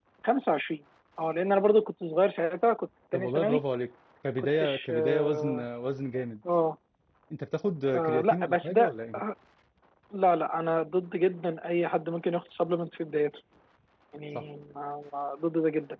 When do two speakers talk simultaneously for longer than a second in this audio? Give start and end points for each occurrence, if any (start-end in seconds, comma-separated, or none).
4.4-5.6, 7.9-9.2